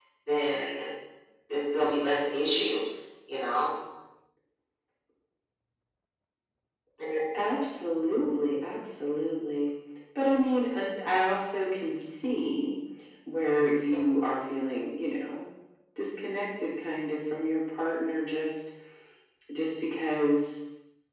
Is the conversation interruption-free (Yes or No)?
Yes